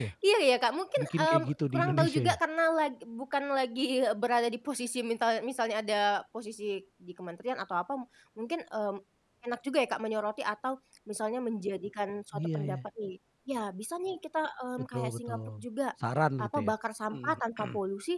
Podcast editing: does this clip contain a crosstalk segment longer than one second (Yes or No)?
Yes